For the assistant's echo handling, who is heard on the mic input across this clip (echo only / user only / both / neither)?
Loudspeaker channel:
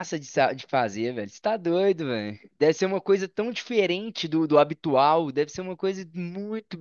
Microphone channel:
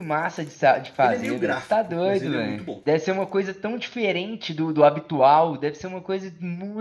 both